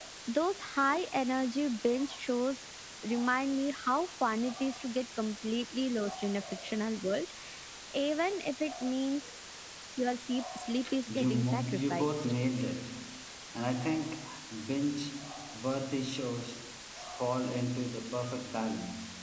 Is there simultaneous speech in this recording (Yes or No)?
Yes